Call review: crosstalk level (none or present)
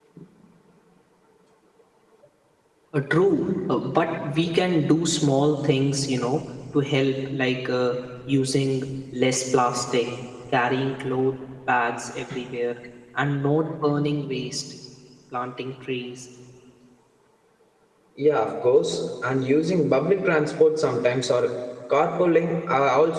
none